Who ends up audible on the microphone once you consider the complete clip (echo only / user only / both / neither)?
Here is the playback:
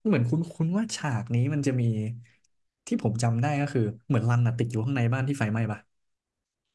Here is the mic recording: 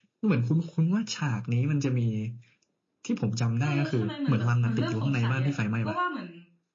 both